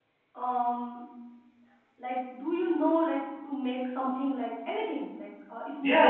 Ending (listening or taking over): taking over